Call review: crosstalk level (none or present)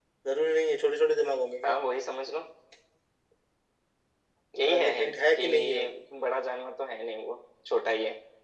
present